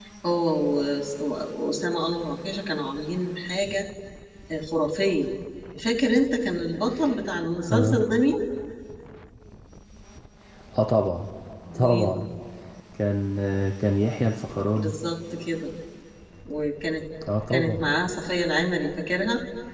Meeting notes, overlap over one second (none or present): none